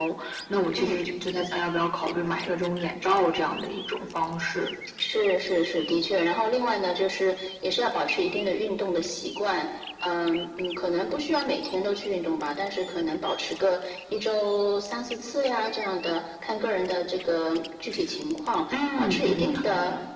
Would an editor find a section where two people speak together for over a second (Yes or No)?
Yes